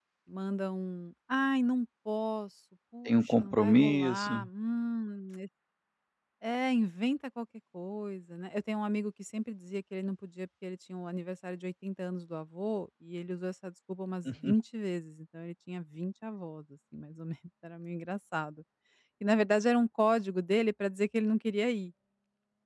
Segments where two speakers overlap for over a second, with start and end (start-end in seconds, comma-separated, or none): 3.0-4.4